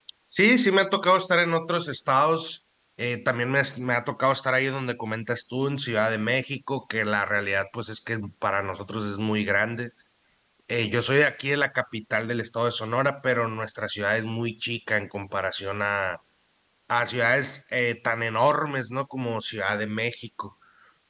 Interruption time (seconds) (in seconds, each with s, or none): none